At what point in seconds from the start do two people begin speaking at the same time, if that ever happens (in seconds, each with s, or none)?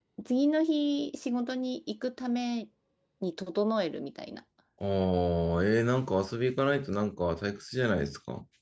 none